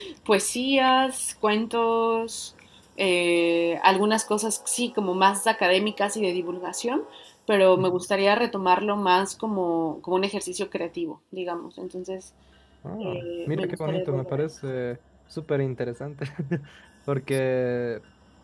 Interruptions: present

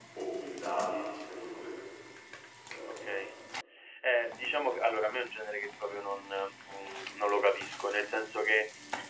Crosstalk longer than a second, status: none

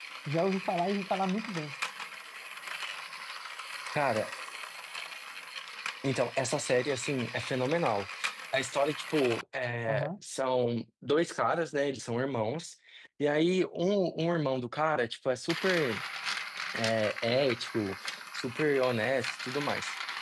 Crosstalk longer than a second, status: none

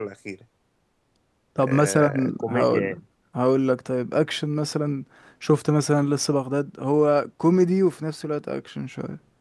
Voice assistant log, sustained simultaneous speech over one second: present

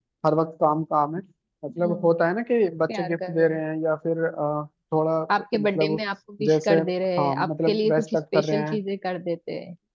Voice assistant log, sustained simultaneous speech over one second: present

